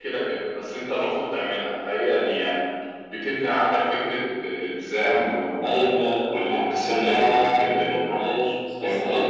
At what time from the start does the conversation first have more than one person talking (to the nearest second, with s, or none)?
6 s